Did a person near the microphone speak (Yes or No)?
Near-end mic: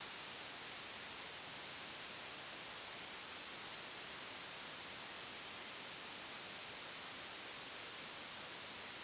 No